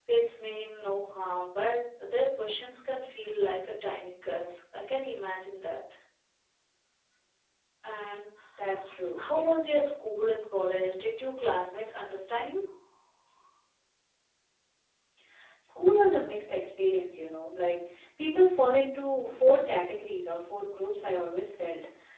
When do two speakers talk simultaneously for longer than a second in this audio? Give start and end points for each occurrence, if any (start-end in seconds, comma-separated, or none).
none